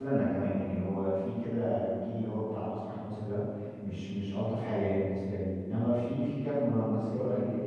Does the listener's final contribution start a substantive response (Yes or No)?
No